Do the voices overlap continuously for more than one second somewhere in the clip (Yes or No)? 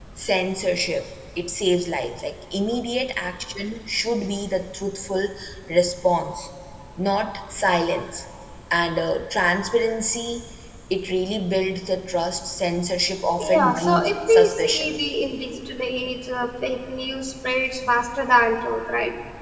Yes